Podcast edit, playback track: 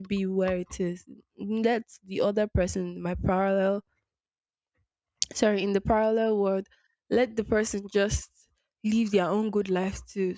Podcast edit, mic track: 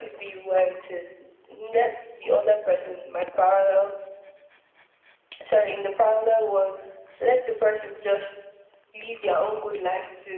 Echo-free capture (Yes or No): No